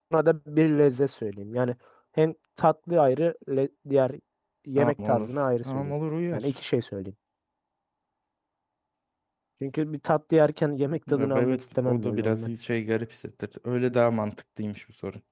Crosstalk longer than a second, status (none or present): present